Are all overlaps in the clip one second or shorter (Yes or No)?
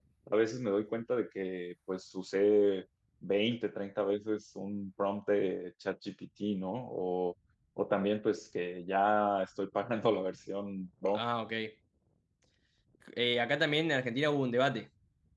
Yes